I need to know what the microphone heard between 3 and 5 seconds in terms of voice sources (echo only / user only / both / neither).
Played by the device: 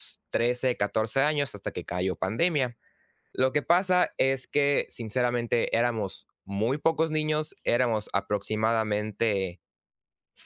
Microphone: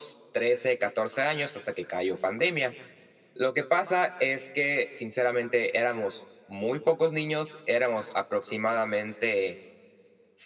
echo only